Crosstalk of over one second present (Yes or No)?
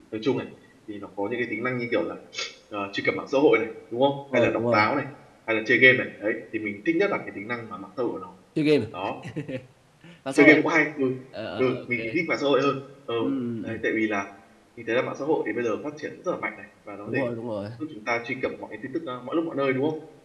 No